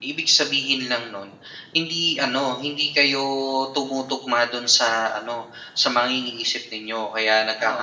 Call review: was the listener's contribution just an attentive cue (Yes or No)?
No